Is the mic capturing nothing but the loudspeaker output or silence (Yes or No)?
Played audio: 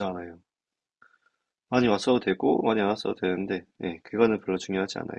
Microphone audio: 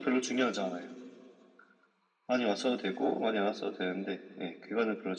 Yes